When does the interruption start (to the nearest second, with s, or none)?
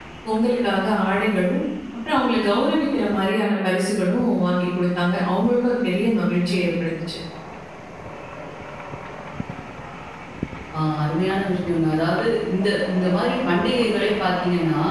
none